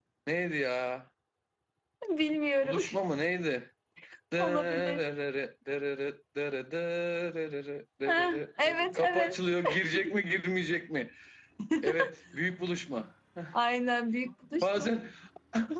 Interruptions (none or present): present